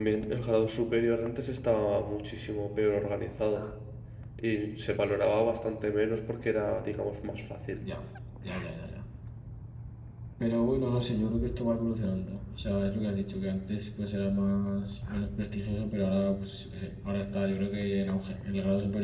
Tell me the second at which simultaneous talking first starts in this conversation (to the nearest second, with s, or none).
none